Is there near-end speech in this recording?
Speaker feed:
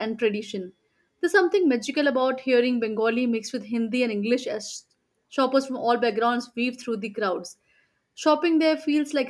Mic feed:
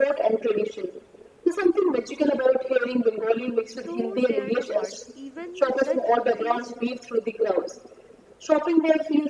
Yes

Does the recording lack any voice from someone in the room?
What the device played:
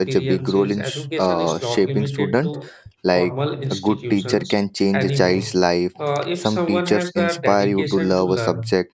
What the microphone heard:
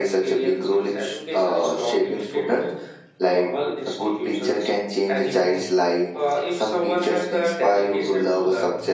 Yes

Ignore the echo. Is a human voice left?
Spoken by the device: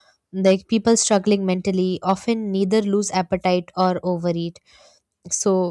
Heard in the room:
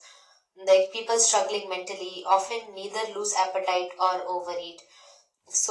No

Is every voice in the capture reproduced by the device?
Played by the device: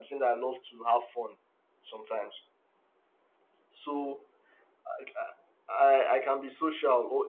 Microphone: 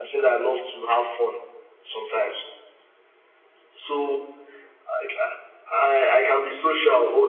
Yes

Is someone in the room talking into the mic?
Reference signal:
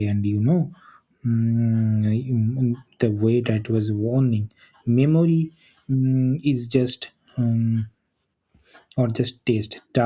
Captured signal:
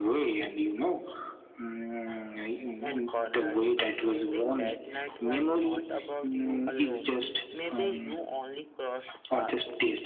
Yes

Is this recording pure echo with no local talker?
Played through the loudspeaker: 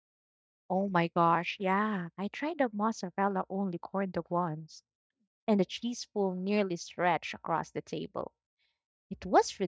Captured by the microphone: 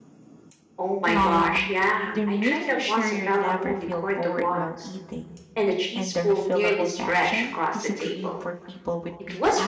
No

